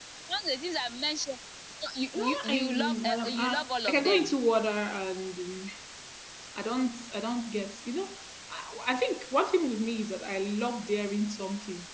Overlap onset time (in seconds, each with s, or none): 2.1 s